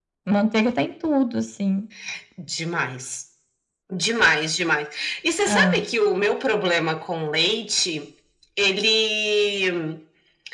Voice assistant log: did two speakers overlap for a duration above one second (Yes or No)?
No